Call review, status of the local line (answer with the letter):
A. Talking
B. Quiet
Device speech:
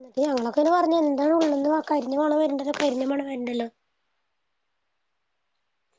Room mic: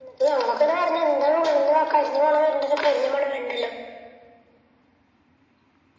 B